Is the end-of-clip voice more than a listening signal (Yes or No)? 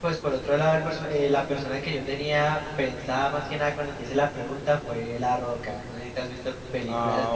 Yes